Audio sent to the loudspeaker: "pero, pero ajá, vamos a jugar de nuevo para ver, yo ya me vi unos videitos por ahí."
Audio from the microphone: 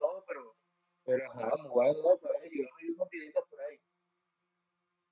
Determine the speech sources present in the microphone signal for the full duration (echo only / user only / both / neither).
echo only